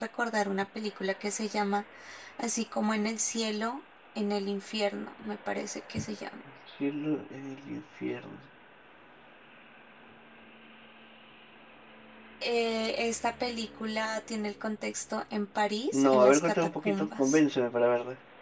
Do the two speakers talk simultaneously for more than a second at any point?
Yes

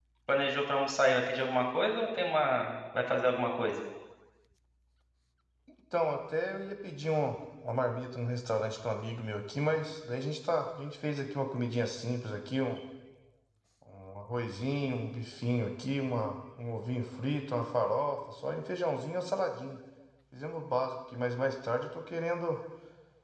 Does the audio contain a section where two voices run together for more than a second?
No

